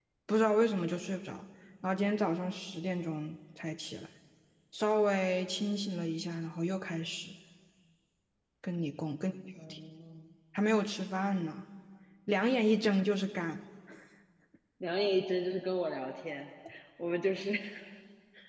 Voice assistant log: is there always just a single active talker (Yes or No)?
Yes